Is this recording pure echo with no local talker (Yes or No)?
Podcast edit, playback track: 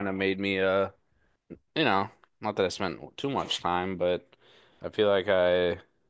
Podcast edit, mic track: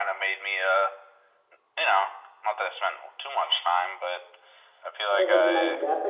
No